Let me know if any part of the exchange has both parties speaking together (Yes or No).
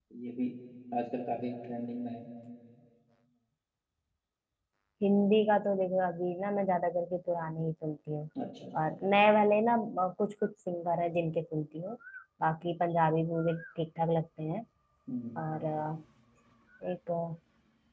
No